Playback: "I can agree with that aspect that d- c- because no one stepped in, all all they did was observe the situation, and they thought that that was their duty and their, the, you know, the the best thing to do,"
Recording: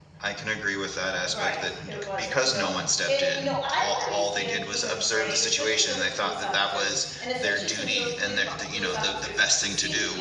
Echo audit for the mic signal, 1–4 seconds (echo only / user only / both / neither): both